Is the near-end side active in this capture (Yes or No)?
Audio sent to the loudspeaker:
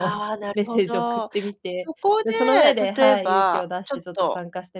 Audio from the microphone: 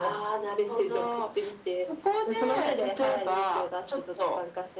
No